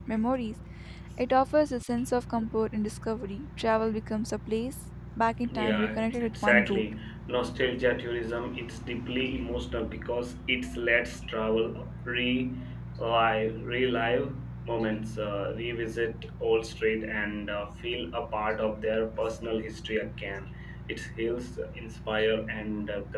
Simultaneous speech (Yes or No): Yes